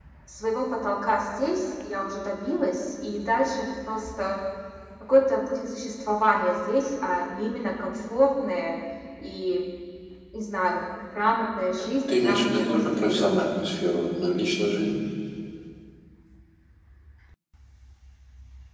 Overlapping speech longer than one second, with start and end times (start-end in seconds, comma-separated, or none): 12.1-13.3